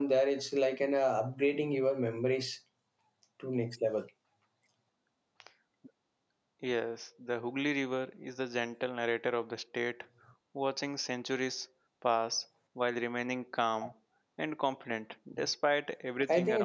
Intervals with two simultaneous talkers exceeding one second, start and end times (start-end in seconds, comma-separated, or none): none